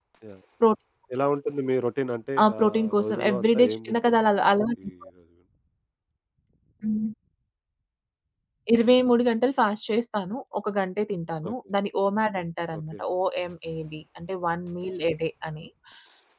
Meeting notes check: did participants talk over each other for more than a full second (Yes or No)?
Yes